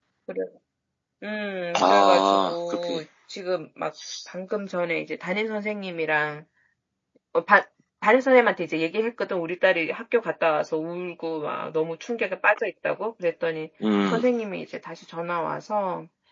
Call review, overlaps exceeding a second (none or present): present